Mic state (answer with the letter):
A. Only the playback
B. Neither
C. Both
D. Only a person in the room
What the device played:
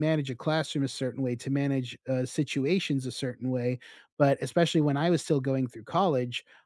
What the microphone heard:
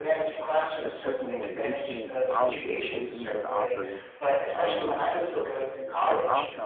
C